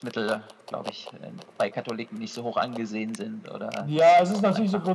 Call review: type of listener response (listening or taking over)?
taking over